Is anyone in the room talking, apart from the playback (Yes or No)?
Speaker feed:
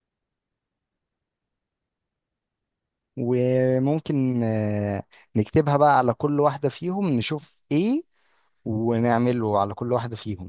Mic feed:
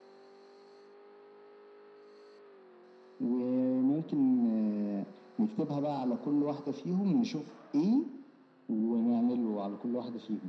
No